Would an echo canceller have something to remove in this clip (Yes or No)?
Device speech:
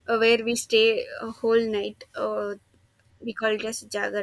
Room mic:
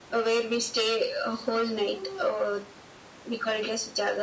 Yes